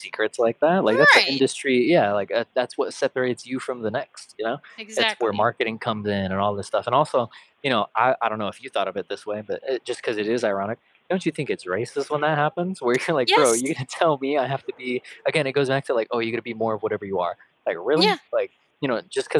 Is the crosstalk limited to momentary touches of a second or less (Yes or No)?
Yes